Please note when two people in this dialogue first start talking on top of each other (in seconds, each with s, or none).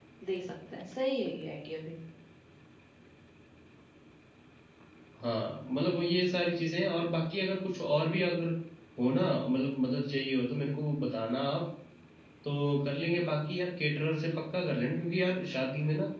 none